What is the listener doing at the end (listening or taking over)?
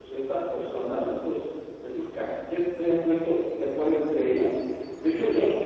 listening